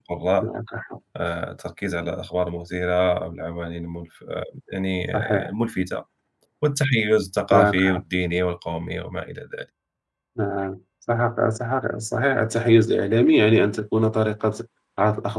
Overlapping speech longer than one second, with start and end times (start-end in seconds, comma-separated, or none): none